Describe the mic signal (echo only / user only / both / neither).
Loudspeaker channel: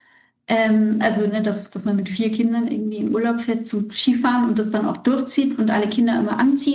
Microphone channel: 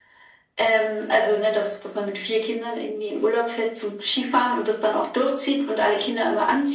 echo only